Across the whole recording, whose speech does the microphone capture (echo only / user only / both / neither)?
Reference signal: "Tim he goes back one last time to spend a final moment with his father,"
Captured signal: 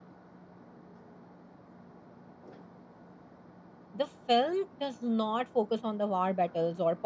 user only